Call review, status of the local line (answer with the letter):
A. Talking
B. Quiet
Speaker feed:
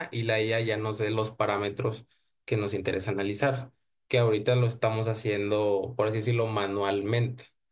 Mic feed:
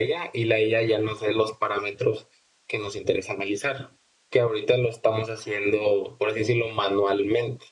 B